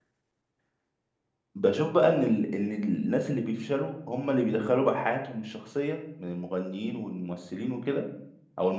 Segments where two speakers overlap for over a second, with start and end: none

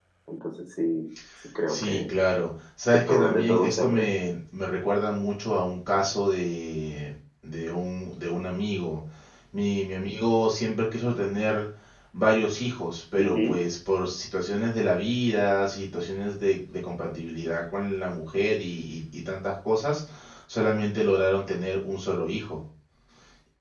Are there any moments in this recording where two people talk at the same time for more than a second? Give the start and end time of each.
2.9-4.1

